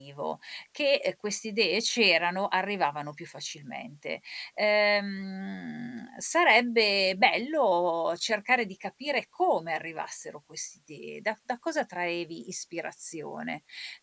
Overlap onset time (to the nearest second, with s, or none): none